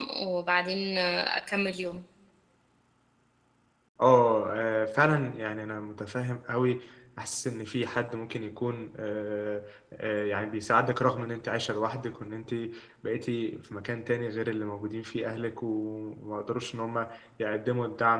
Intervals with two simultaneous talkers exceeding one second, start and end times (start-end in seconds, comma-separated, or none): none